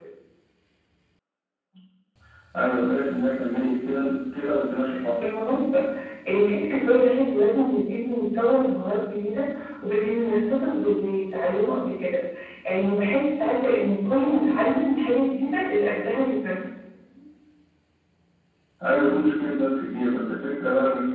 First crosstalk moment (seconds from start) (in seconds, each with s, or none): none